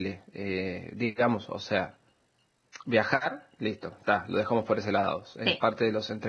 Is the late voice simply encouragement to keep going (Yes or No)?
Yes